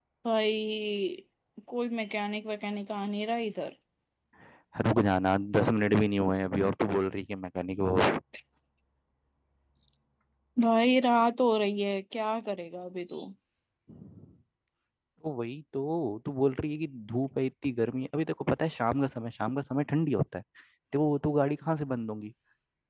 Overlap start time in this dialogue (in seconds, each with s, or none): none